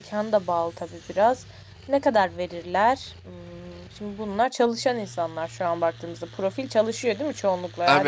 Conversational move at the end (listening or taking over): taking over